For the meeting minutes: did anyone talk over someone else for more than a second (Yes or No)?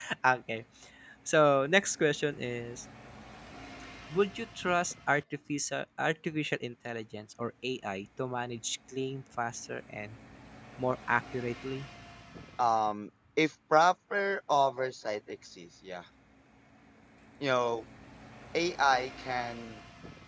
No